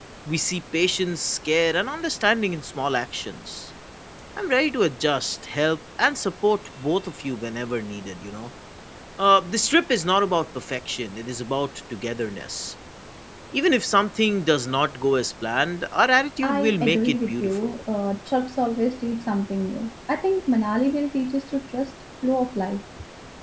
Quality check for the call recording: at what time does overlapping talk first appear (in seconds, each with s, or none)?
16.4 s